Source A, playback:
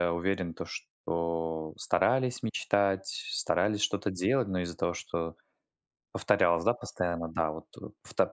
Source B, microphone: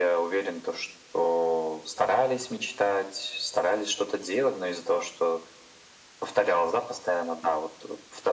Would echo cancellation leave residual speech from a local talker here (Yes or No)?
No